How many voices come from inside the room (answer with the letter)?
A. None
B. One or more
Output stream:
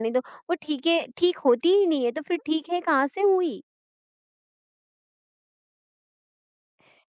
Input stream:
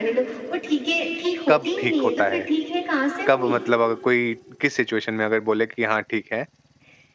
B